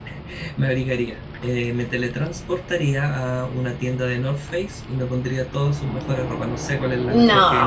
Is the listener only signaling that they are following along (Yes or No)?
Yes